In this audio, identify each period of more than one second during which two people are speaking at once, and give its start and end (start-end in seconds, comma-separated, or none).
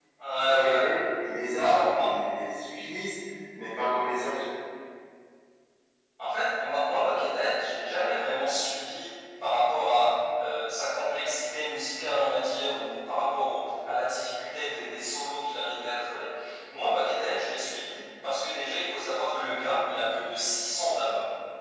none